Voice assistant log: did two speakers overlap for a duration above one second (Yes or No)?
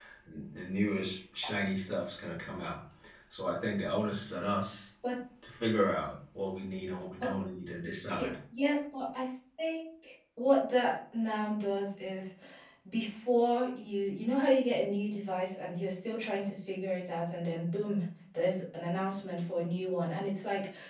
No